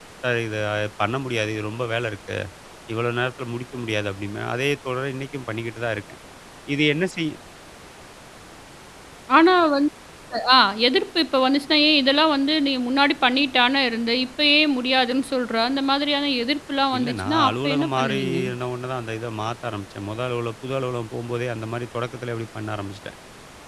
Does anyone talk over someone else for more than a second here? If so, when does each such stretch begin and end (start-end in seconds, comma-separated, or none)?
17.0-18.4